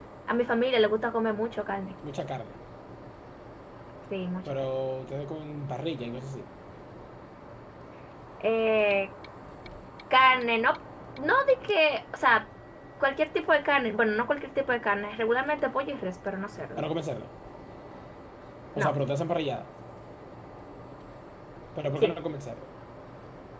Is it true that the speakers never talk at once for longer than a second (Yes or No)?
Yes